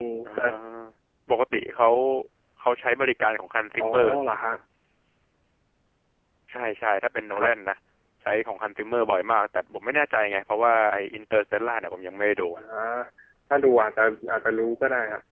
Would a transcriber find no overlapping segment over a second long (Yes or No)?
Yes